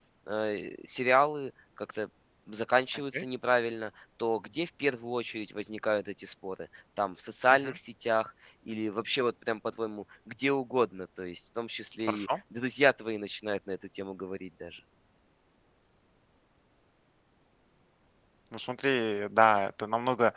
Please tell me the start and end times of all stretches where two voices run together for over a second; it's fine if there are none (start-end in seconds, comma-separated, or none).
none